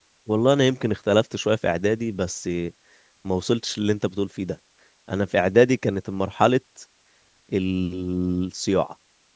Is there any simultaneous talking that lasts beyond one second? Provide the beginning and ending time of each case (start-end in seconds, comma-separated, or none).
none